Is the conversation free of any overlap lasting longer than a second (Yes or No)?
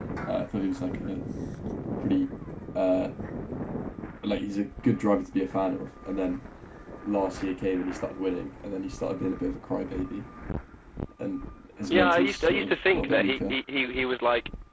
No